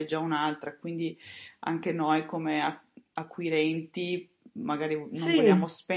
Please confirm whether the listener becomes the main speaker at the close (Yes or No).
No